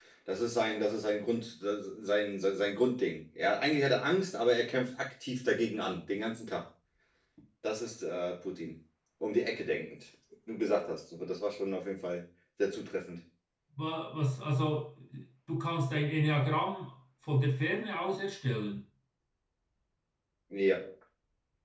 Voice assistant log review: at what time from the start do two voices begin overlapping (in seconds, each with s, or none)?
none